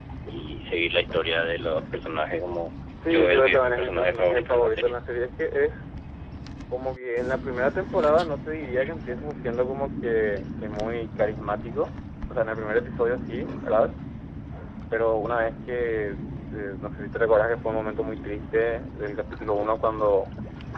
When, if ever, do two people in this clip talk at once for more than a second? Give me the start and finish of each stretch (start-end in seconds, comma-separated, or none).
3.1-4.9